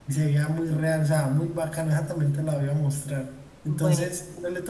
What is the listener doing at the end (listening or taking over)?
listening